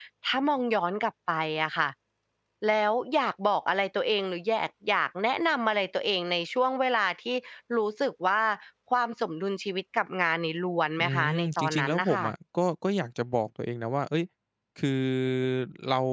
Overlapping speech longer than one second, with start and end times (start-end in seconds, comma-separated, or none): 11.0-12.2